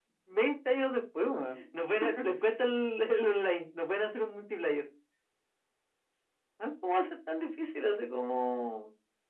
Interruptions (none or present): none